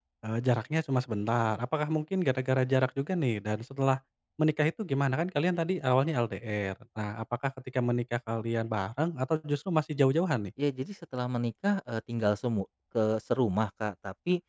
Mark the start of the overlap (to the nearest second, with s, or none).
none